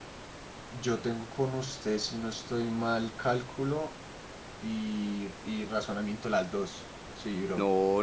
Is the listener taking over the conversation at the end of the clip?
Yes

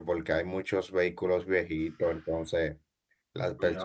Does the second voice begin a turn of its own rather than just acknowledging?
No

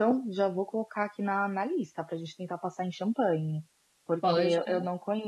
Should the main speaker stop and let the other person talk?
No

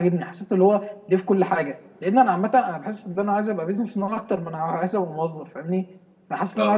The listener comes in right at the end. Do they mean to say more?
No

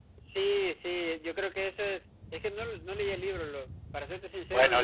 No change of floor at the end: No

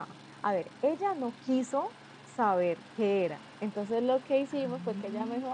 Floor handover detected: No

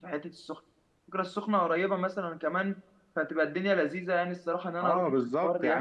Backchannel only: No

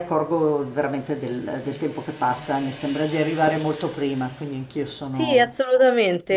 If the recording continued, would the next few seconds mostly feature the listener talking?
Yes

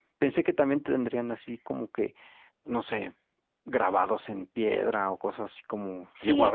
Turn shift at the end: Yes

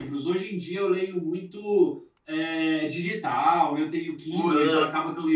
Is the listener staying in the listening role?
Yes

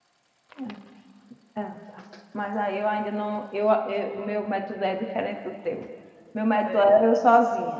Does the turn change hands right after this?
No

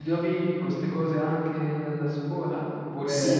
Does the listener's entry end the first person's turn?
Yes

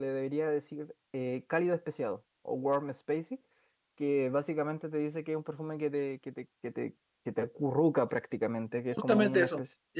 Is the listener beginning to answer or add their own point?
Yes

